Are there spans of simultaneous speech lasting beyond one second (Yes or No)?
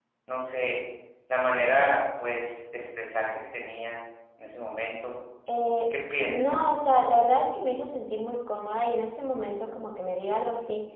No